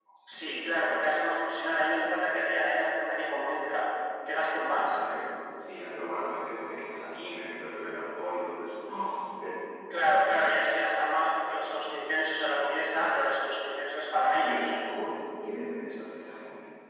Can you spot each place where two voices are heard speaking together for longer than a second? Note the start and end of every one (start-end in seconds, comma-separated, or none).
none